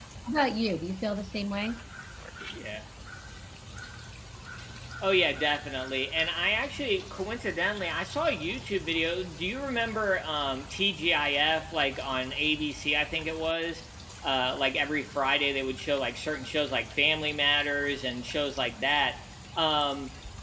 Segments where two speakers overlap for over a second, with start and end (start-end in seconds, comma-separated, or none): none